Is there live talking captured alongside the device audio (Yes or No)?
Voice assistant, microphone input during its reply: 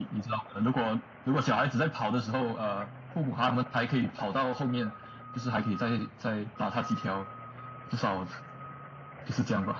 No